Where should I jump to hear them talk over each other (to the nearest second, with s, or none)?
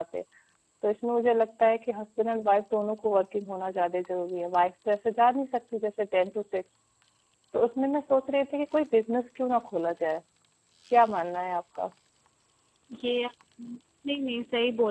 none